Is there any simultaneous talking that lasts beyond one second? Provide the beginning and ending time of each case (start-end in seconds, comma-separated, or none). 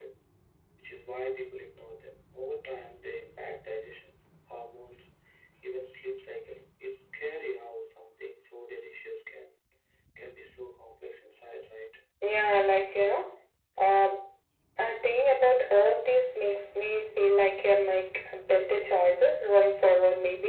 none